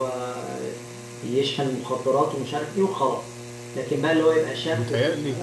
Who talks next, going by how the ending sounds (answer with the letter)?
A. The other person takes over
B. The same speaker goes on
B